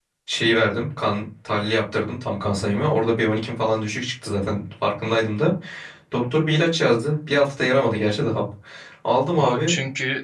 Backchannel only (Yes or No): No